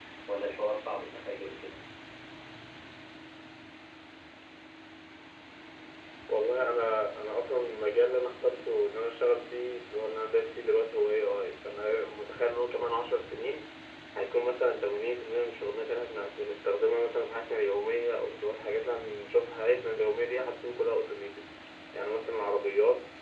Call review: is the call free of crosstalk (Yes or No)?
Yes